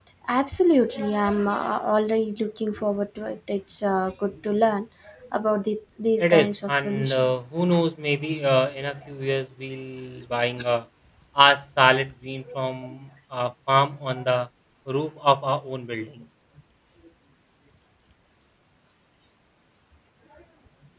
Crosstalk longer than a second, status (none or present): present